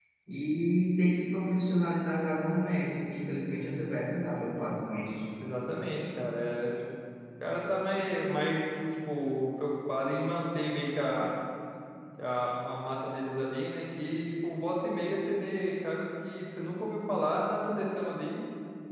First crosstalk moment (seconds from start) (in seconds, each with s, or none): none